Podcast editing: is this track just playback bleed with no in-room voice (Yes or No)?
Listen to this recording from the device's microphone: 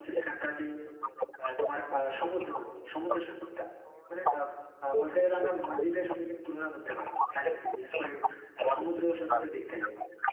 No